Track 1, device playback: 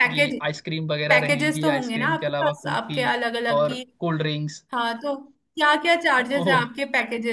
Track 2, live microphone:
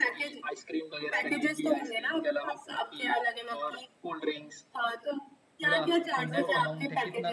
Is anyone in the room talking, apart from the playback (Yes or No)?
Yes